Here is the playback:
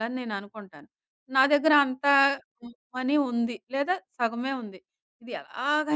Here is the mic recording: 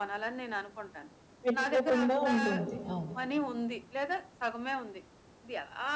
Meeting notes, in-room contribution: present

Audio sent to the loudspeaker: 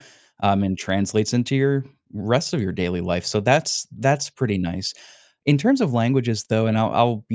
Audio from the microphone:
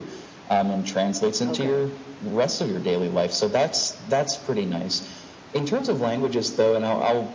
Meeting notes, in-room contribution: present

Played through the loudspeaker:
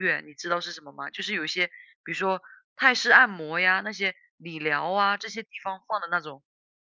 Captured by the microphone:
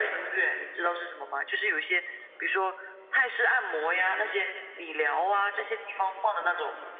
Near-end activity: none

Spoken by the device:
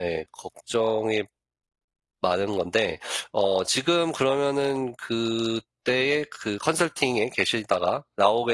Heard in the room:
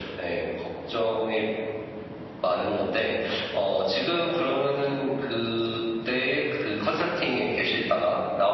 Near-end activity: none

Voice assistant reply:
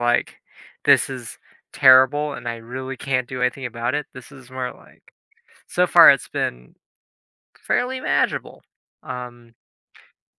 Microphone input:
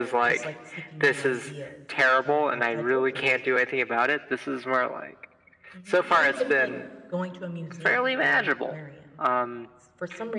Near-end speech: present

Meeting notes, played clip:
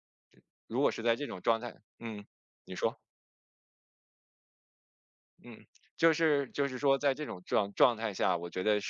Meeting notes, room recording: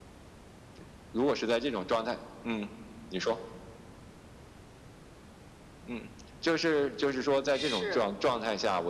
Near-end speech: present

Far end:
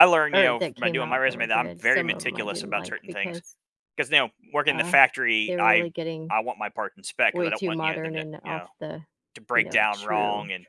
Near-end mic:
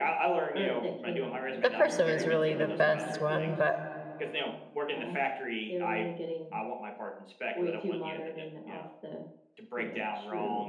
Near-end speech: present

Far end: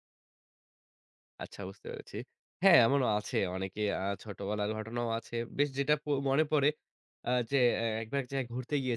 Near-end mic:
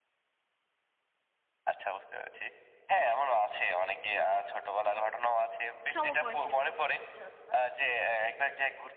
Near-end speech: present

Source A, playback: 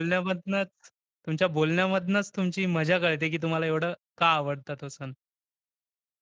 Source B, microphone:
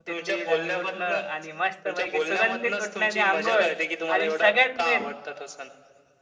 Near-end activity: present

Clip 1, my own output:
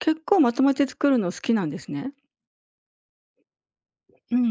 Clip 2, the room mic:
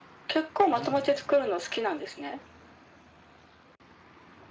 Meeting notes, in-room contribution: present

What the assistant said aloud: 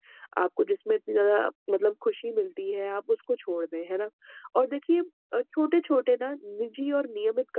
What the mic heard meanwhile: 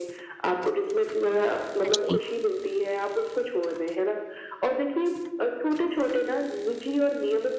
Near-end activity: present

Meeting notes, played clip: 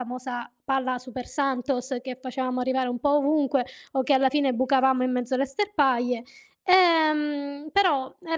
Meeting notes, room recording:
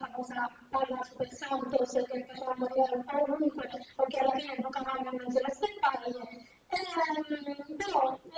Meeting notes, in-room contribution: none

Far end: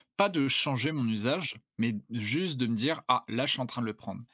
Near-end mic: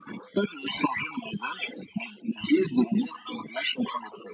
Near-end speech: none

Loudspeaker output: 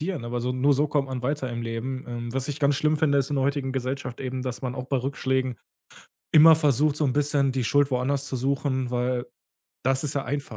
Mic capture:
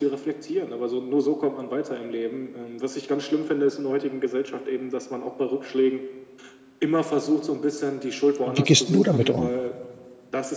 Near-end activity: present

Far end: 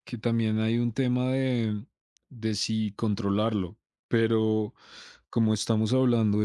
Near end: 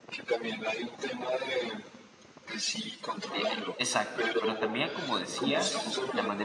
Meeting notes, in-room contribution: present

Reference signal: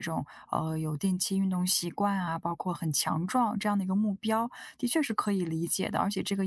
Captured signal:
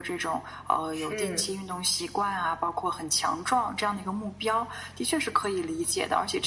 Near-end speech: present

